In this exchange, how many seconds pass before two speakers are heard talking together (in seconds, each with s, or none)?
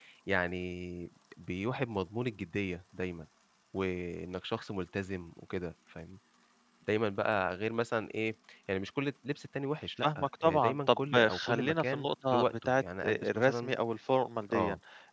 10.0 s